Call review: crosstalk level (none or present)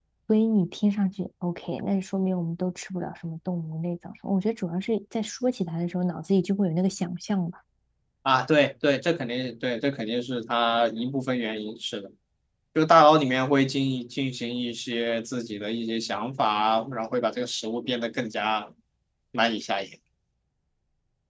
none